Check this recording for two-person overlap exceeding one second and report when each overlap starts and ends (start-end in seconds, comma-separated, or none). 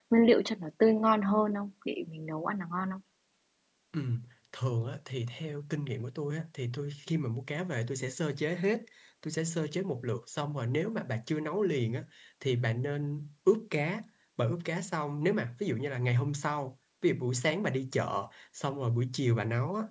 none